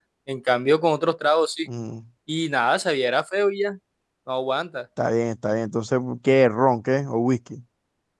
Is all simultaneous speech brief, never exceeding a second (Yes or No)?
Yes